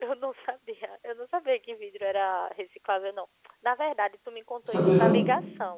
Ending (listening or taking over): listening